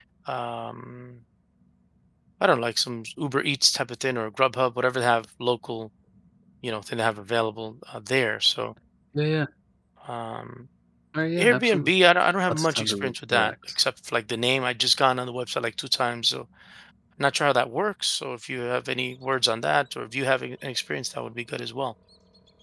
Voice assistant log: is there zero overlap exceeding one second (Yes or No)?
No